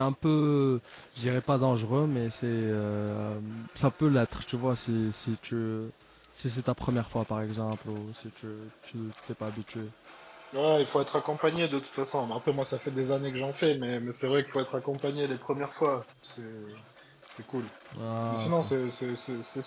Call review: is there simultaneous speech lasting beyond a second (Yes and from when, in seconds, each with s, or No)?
No